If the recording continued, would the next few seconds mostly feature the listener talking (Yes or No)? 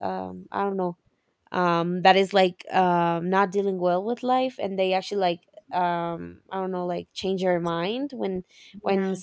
No